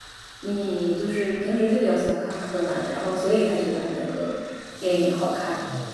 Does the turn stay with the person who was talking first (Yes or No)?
No